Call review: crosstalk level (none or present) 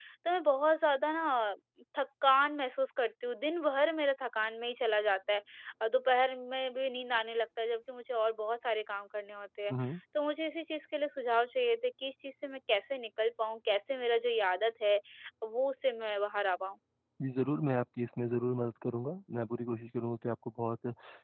none